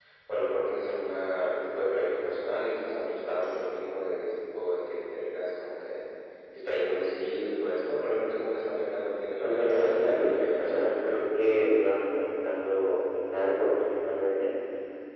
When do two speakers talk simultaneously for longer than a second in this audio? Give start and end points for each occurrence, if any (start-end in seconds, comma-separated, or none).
9.4-10.9